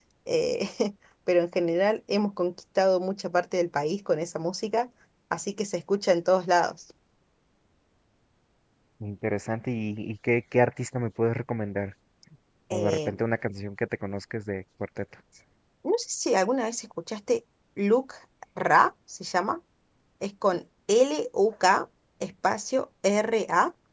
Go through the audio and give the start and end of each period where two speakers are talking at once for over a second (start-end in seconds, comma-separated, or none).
none